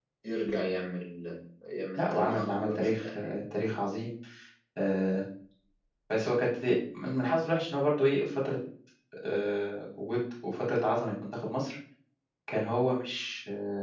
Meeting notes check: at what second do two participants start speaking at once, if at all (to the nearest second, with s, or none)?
2 s